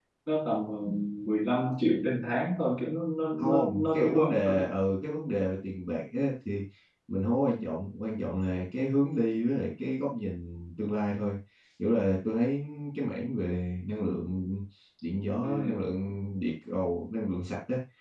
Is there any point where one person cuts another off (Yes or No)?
Yes